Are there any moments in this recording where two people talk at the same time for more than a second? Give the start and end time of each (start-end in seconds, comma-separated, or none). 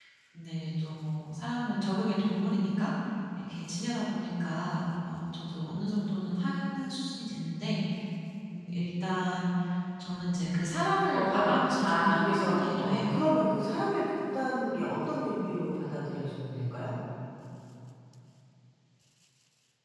11.1-13.0